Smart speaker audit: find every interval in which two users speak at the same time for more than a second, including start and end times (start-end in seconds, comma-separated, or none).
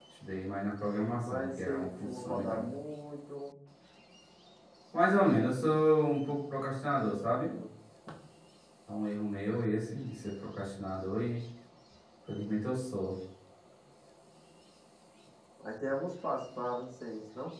1.2-2.7